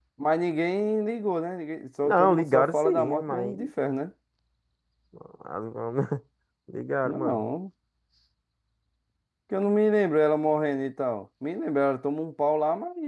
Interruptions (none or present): present